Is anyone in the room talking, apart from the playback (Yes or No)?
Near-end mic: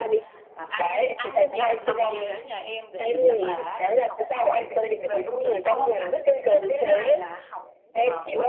Yes